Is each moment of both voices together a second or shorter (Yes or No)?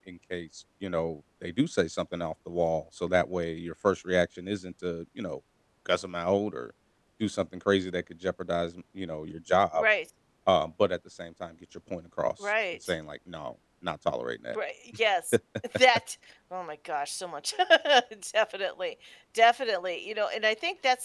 Yes